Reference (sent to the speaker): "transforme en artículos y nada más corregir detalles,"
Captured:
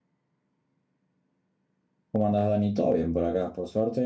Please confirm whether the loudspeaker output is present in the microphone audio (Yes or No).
No